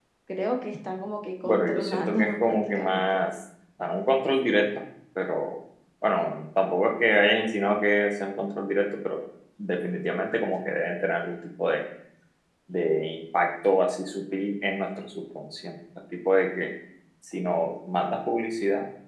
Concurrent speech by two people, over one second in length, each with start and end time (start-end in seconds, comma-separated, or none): 1.4-3.2